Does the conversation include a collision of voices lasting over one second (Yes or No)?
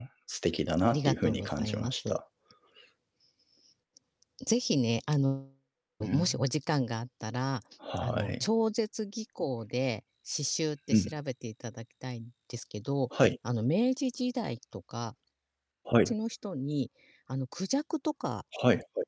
Yes